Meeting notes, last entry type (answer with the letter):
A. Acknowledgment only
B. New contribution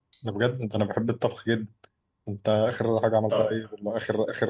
A